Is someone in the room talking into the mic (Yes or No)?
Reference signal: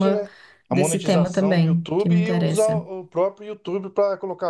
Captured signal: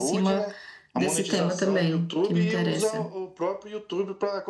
No